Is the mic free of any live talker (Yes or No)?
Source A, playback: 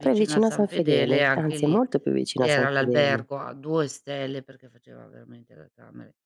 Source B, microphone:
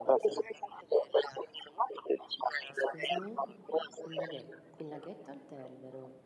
No